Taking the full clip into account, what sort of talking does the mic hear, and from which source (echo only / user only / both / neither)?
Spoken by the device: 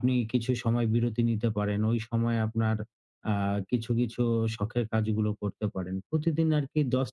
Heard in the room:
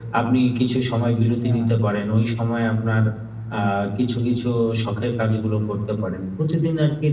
both